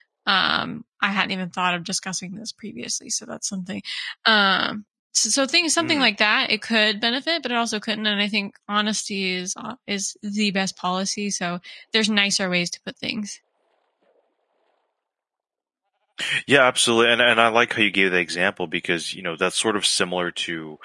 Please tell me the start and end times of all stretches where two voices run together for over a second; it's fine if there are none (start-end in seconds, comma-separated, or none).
none